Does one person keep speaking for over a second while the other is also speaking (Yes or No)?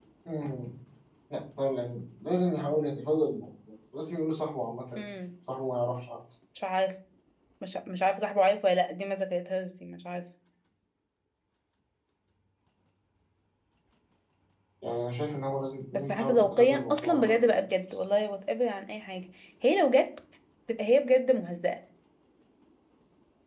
Yes